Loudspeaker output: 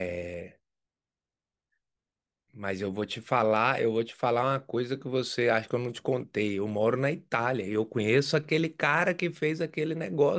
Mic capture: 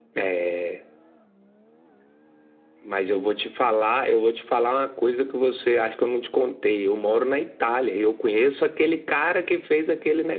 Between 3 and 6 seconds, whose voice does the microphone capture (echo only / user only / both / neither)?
echo only